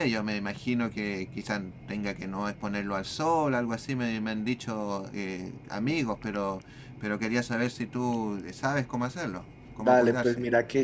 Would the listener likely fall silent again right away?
No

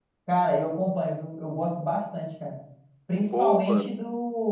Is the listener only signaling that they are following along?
Yes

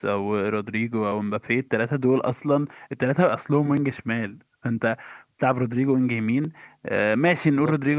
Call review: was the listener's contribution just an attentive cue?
Yes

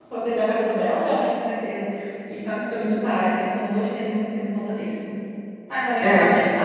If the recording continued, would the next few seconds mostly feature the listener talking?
No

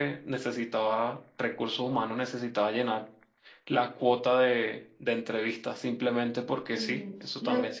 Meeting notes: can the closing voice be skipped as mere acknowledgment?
No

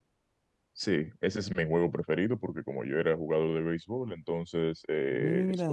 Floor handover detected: No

